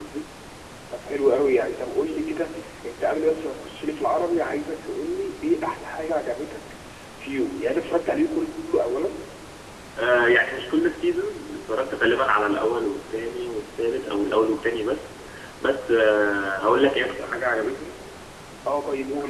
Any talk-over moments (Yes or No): No